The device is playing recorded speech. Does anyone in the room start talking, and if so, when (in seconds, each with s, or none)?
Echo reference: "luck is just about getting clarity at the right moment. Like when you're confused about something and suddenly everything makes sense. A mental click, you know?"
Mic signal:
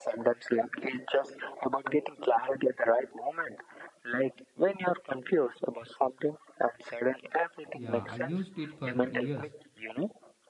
7.7 s